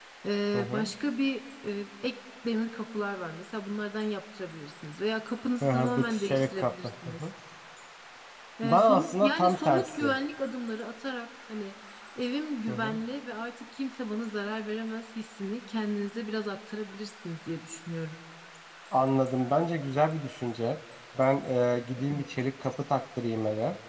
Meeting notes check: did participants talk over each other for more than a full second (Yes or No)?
Yes